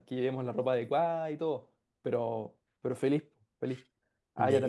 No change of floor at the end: Yes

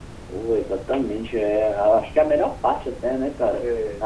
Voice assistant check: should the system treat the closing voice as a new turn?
No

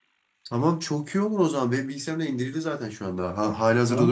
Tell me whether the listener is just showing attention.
No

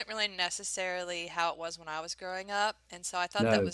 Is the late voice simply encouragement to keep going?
Yes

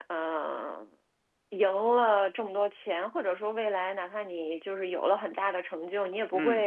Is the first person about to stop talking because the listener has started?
No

